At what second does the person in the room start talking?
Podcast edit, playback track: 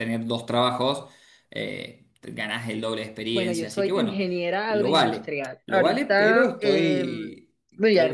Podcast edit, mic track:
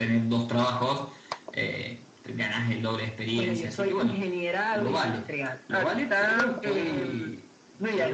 none

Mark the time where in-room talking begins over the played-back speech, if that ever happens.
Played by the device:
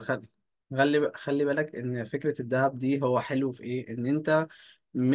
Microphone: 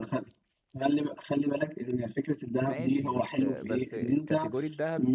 2.6 s

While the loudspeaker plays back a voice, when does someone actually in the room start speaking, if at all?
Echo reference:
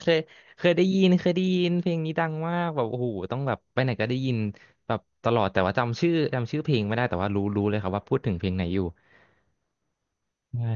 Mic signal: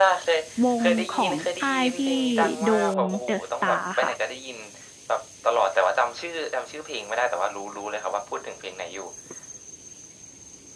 0.6 s

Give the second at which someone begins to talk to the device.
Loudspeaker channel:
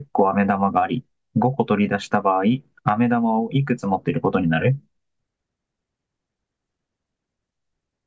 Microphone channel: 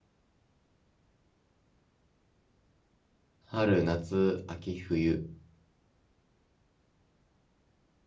3.4 s

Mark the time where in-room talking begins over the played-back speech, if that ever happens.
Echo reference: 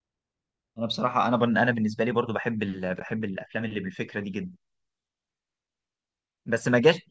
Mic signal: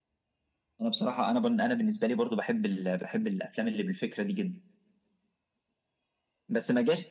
none

